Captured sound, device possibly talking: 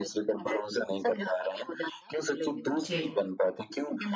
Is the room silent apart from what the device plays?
No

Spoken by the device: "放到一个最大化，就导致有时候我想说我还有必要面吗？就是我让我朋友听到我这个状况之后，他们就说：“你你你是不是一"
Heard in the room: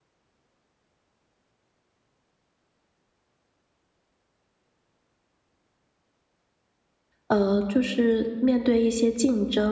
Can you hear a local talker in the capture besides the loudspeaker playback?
Yes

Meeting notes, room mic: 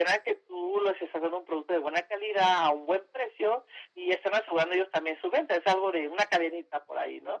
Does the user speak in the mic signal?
No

